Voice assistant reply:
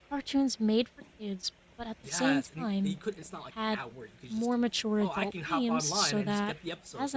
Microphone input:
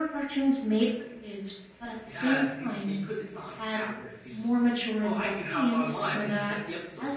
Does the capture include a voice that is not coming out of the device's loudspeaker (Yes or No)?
No